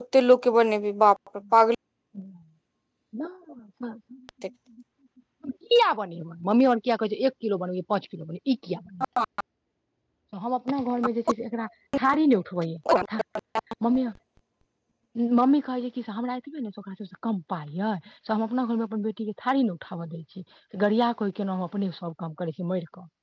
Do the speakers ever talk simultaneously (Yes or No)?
No